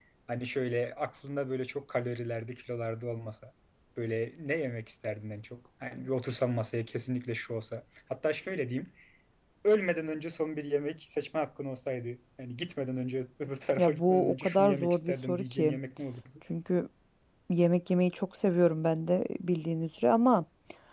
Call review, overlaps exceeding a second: present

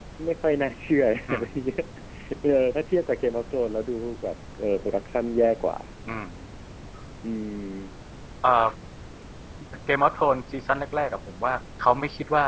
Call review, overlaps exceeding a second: none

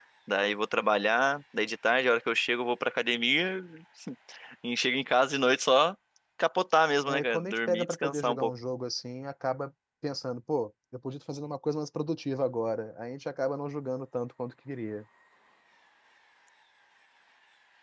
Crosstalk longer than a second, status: present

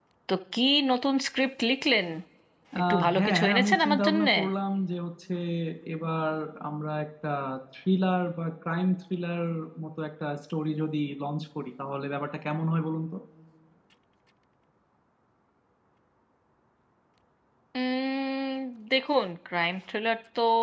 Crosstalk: present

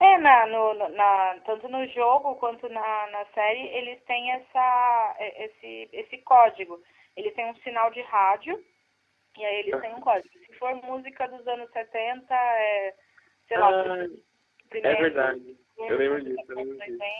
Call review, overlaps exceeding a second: present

